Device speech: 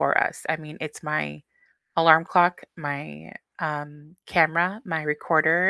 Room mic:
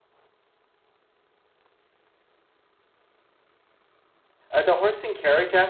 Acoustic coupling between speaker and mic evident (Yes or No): No